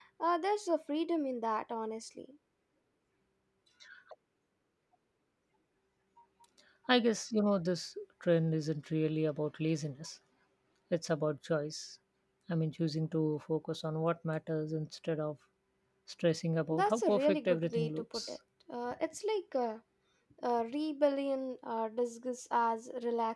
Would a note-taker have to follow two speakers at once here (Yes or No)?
Yes